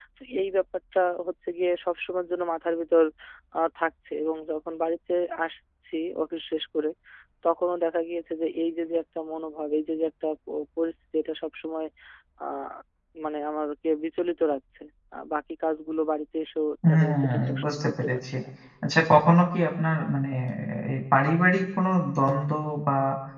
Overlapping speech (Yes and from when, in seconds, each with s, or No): Yes, from 16.8 s